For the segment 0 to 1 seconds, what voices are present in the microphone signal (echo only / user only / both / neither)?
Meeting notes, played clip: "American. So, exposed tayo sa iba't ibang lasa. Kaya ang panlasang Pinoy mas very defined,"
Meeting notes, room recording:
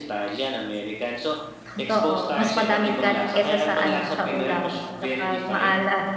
echo only